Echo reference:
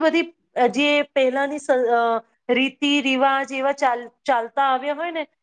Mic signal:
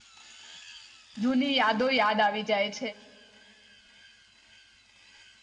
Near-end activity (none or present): present